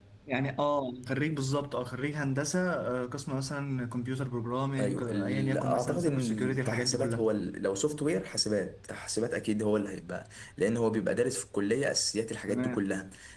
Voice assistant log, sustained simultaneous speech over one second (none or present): present